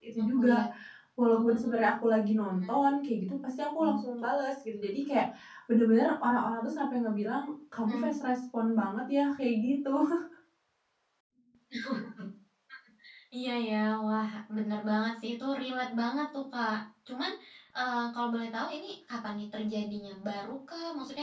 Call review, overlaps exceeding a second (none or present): none